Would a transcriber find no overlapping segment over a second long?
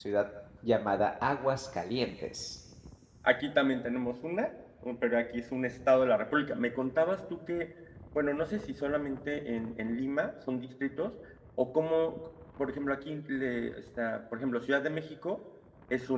Yes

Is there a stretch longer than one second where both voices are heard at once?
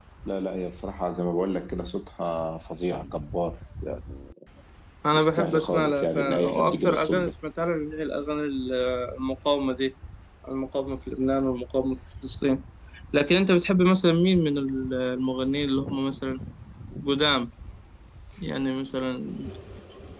Yes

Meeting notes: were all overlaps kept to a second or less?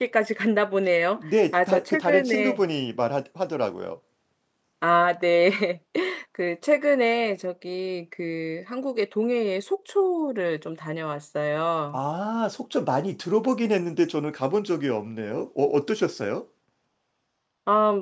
No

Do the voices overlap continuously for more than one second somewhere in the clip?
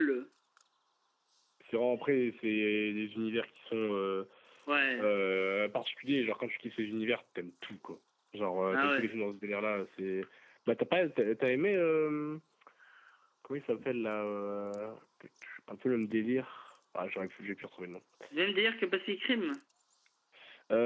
No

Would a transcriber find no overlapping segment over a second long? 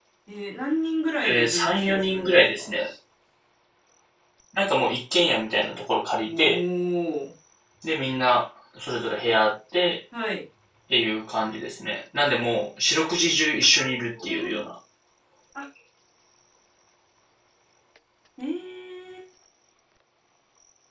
No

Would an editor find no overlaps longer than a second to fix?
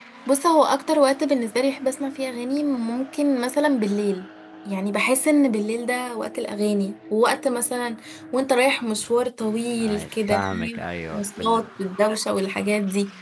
No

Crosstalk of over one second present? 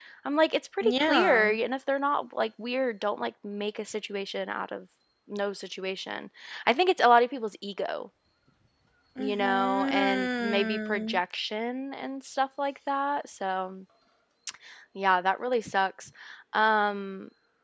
Yes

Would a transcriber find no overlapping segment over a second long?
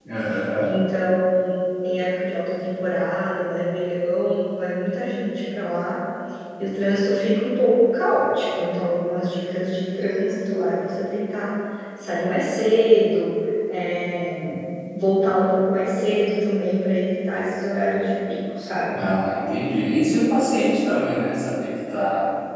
Yes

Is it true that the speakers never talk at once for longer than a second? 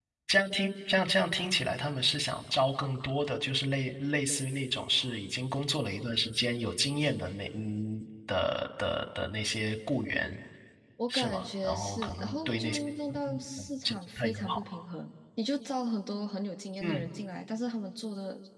No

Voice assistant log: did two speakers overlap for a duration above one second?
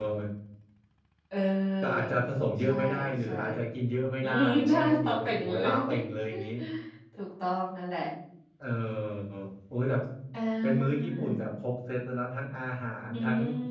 Yes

